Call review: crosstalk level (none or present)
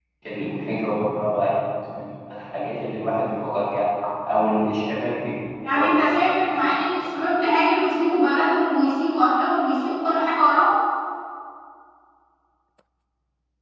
present